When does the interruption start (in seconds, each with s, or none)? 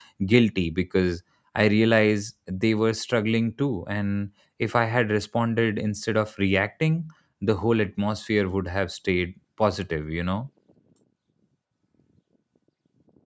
none